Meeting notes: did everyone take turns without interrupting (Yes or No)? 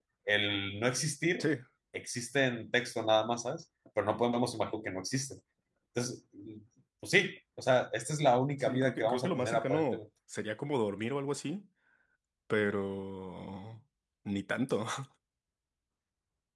No